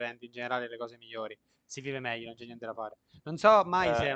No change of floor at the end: Yes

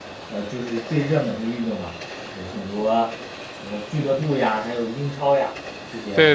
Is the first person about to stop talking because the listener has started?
Yes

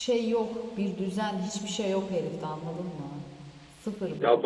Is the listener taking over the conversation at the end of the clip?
Yes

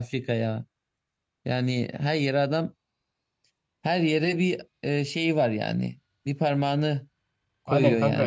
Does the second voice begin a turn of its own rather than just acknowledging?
Yes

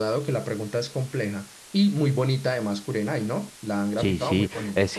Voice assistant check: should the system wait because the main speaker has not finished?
No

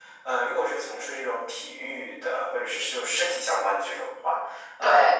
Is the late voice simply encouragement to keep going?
Yes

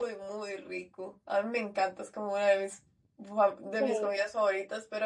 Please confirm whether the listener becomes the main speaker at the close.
No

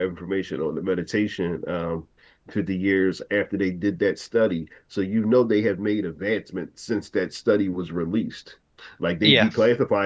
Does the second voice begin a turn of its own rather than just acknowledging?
No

